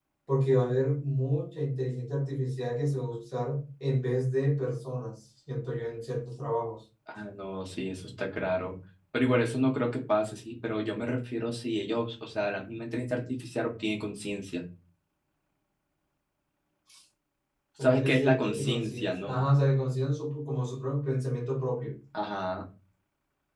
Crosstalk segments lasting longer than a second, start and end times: 17.8-19.4

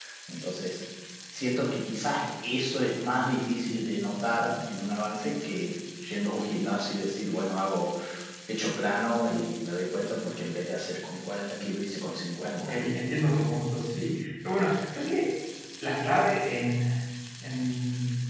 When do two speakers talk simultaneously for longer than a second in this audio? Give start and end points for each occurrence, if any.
none

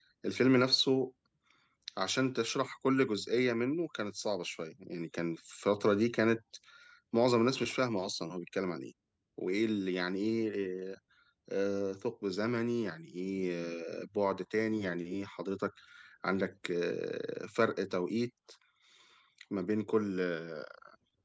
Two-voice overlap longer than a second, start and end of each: none

